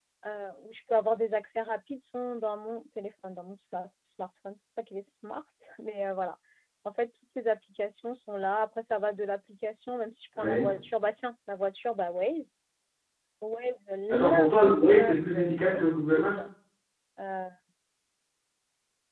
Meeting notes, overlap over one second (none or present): present